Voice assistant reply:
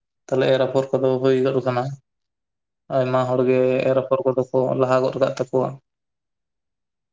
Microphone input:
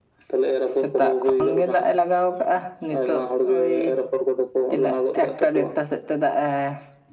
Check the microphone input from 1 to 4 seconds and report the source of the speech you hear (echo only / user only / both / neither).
both